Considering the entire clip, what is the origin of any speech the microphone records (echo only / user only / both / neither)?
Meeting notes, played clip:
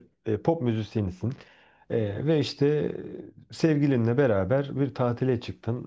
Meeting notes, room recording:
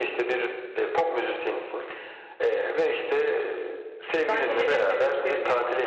both